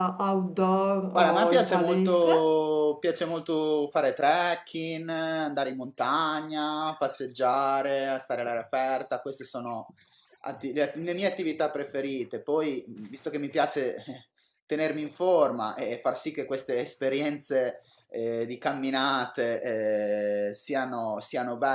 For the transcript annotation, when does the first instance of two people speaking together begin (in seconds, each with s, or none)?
1.1 s